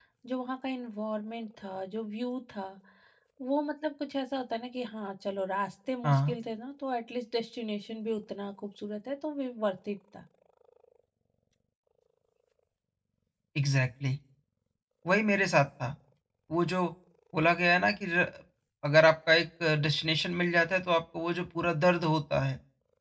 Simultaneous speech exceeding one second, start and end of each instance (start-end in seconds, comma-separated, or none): none